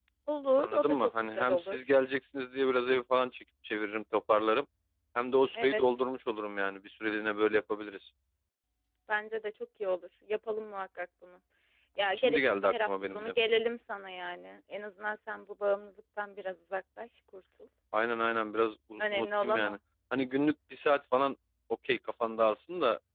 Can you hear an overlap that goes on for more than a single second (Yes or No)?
Yes